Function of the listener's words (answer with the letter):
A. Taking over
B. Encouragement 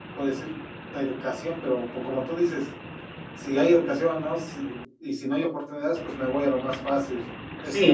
A